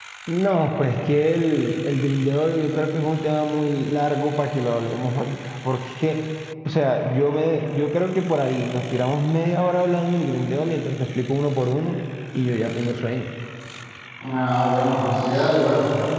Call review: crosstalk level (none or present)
none